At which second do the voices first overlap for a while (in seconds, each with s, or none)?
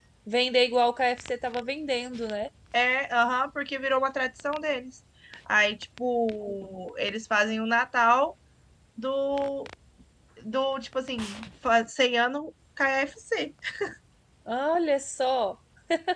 none